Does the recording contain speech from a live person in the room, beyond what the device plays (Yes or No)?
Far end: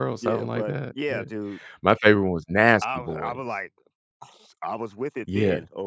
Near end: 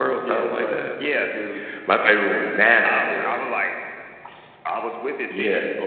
No